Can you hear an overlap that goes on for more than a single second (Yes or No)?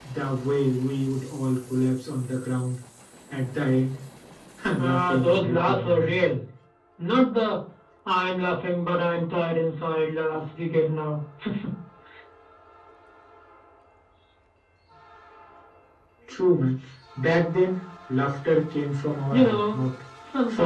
Yes